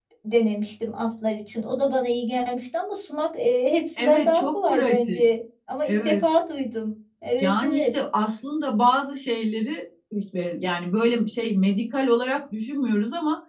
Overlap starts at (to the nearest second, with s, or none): 4 s